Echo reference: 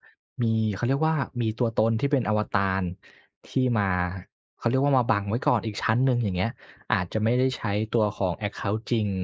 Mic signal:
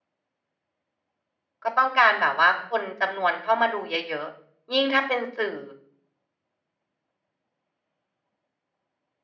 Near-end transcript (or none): ก็ต้องการแบบว่าคนจำนวนเข้ามาดูเยอะ ๆ ยิ่งถ้าเป็นสื่อ